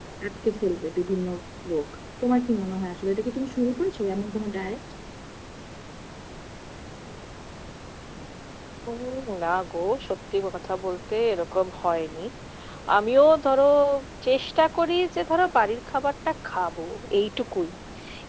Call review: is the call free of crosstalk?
Yes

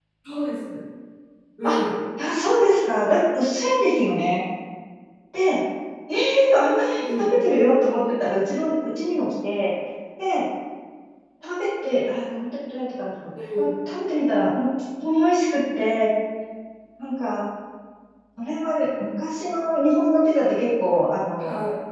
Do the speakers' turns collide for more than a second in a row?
No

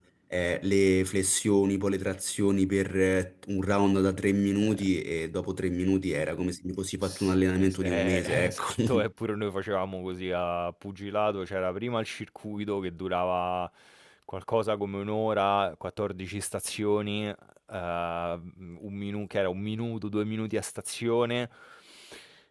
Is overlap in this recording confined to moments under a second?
No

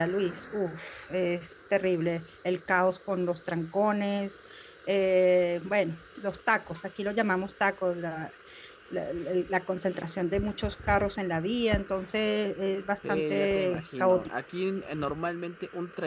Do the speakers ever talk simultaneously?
Yes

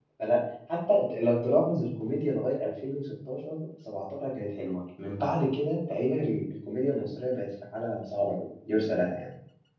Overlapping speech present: No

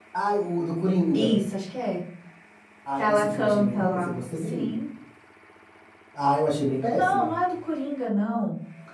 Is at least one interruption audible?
Yes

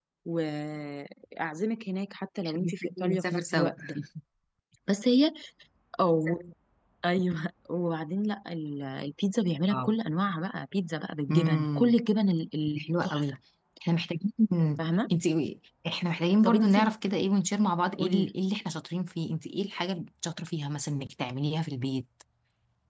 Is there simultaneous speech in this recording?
Yes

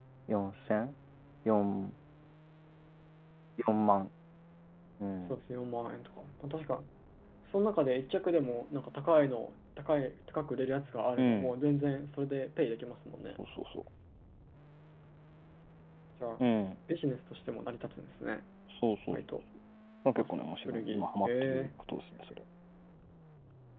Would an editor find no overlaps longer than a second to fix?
No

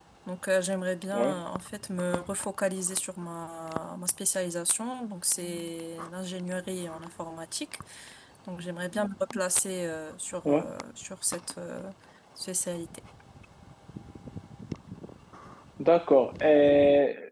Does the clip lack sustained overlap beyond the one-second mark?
Yes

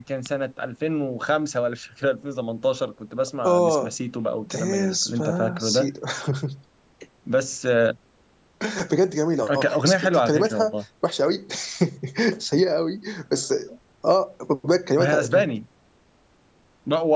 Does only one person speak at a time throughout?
No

